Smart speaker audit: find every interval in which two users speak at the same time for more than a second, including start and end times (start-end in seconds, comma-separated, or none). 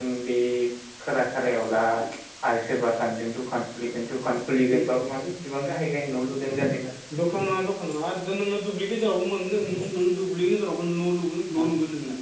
none